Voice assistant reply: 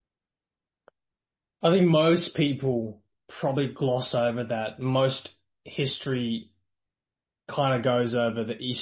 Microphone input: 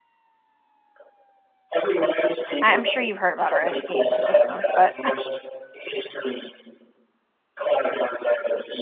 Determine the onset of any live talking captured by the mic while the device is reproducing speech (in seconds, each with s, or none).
2.6 s